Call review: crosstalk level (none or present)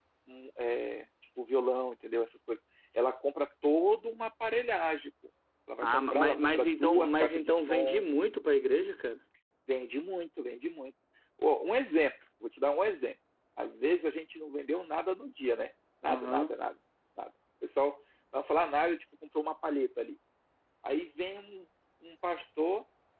present